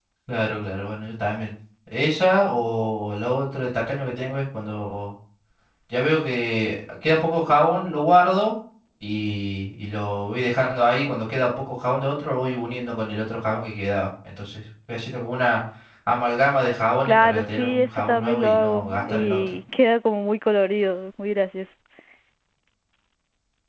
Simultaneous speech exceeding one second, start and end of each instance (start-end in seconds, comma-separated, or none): 17.1-19.6